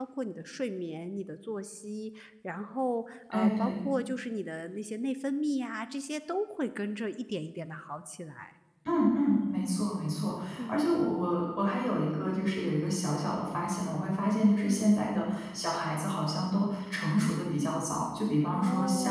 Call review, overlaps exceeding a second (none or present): none